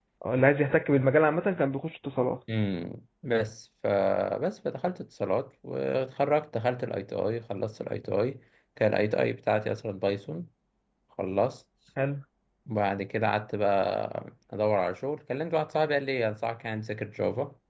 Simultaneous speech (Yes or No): No